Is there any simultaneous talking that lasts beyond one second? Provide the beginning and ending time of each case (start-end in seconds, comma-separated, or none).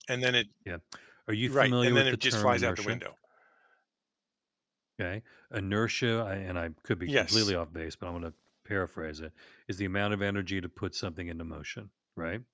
1.5-3.0